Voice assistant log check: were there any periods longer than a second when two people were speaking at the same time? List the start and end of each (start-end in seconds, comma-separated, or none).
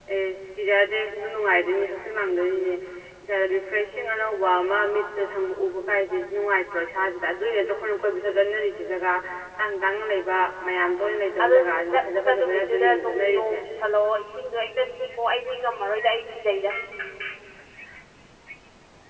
11.4-13.6